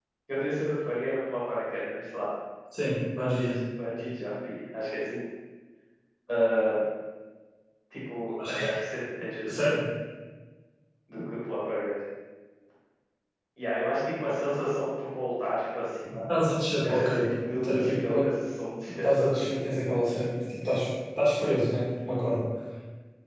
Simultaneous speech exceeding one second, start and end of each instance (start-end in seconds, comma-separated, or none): 16.8-18.2